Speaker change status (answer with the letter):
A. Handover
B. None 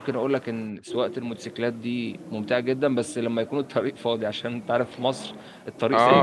A